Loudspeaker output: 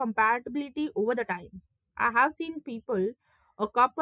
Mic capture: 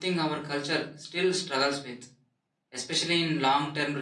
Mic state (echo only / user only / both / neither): user only